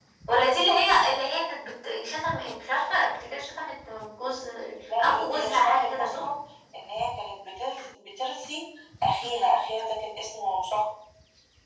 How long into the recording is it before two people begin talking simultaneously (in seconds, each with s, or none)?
5.0 s